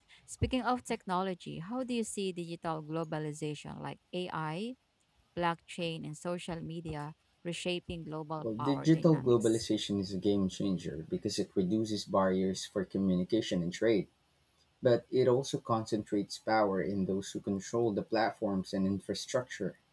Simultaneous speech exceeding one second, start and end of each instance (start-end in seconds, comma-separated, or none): 8.4-9.7